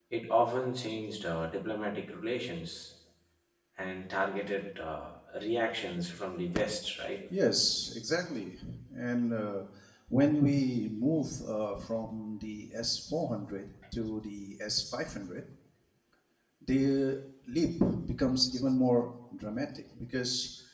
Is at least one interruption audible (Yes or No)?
No